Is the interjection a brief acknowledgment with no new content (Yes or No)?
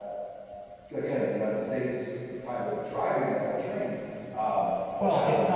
No